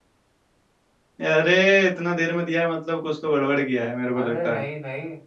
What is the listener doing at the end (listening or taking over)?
taking over